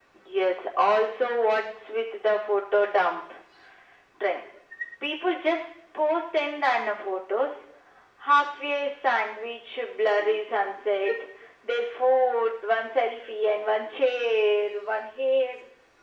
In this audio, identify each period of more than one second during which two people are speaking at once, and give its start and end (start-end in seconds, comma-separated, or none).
none